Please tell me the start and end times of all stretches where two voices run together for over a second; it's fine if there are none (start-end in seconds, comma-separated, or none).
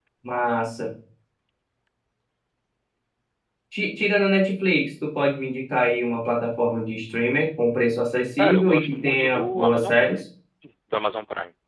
8.4-10.2